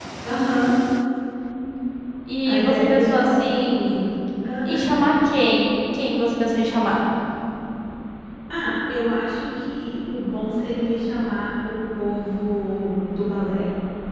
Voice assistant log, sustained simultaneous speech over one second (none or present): present